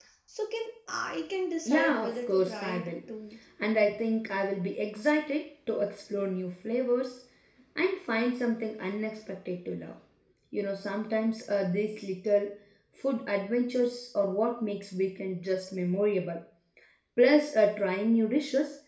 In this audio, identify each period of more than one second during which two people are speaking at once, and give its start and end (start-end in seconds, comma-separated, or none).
1.6-2.9